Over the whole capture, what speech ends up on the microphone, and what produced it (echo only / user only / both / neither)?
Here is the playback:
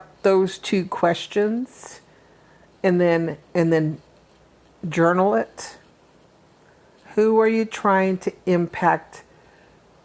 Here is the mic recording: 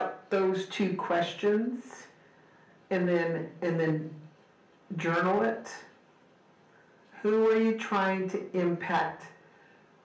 echo only